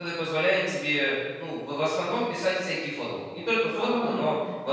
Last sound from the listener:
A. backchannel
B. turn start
A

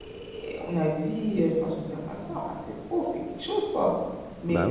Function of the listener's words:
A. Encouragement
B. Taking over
A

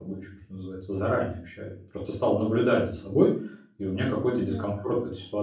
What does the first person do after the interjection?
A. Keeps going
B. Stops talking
A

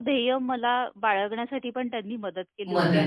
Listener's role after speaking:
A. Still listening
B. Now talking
A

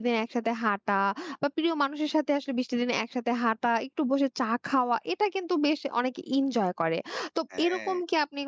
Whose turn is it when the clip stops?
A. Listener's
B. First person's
B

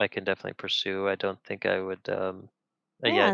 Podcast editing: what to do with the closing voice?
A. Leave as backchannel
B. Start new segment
B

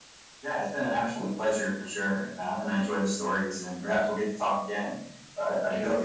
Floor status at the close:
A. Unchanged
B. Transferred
B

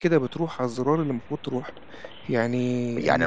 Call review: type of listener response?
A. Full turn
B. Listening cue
A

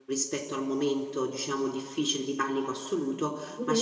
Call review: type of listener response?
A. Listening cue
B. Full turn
A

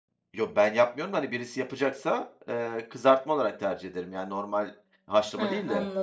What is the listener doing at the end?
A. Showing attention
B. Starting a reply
B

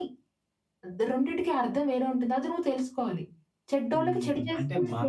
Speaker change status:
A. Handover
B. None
A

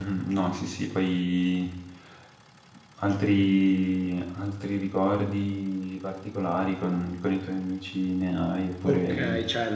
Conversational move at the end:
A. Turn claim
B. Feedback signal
A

